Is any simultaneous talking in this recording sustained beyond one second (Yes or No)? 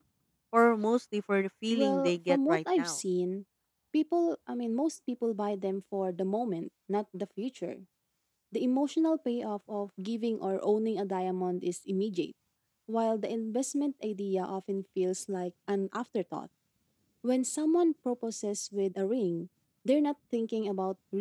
Yes